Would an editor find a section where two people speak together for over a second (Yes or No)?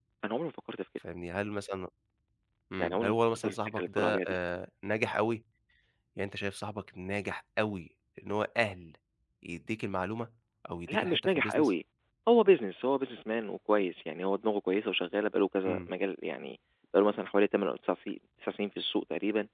Yes